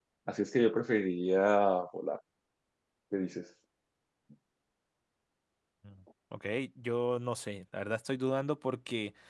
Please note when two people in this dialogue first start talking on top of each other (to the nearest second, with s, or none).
none